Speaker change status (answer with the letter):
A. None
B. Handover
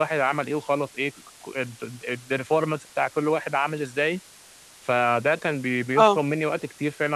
A